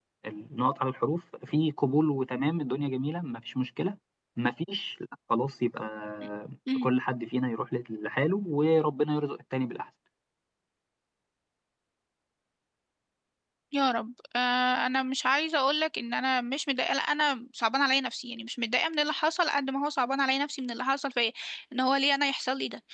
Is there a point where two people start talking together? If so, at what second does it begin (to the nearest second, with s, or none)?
none